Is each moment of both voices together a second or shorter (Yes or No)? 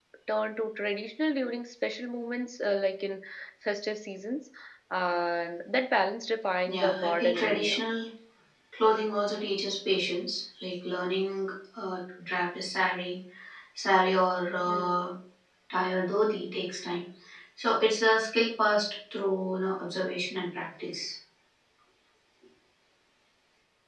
No